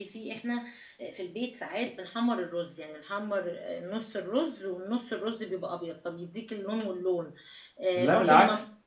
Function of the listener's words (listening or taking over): listening